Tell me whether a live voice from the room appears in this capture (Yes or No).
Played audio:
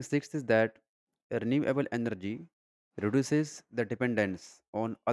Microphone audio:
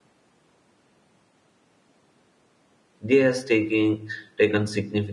Yes